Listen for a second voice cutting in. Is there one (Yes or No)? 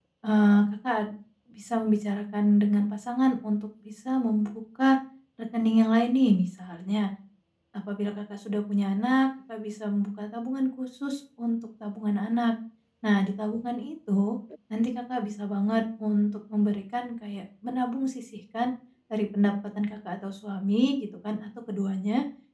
No